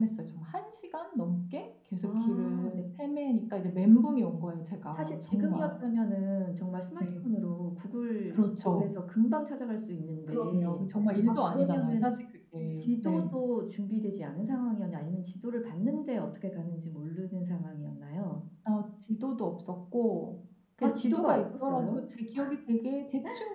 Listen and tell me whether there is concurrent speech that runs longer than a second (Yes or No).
Yes